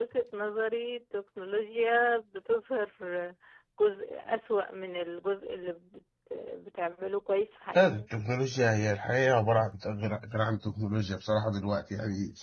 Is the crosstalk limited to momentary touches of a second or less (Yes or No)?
Yes